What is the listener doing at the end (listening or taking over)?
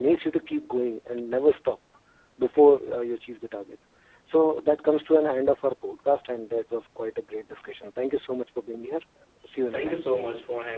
taking over